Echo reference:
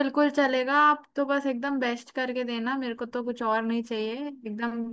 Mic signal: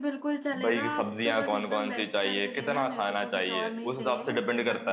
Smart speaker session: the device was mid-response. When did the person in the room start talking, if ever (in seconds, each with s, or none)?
0.6 s